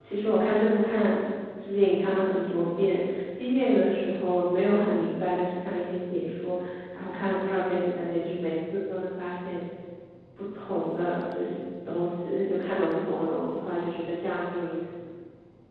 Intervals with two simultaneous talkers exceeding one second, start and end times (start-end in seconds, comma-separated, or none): none